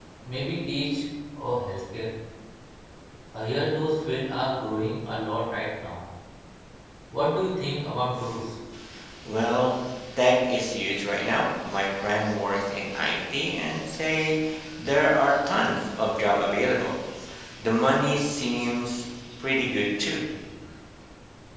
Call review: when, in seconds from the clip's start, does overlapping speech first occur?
none

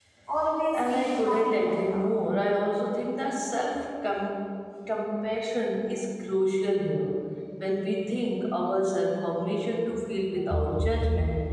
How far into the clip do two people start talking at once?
0.8 s

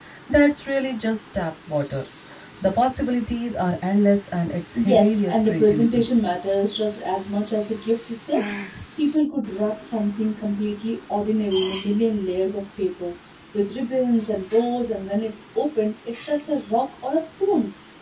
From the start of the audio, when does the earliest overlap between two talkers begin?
4.7 s

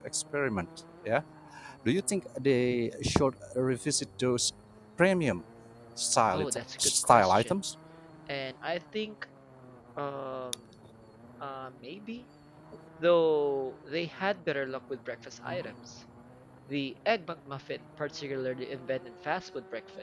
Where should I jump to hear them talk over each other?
6.3 s

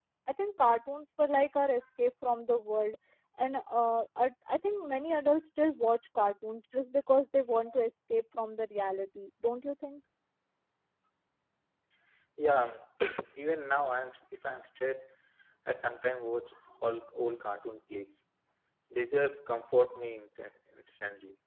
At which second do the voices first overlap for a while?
none

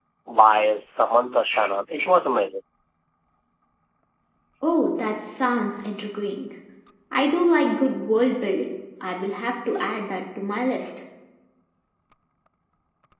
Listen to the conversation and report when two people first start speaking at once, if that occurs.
none

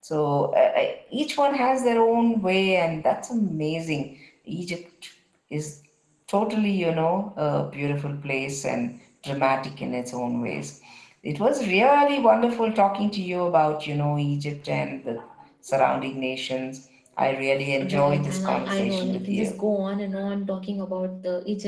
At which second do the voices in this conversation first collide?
17.8 s

